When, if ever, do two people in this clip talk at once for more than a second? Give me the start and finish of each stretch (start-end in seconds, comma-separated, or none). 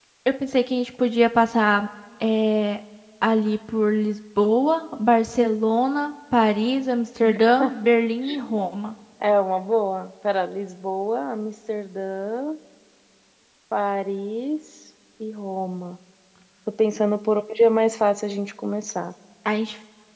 none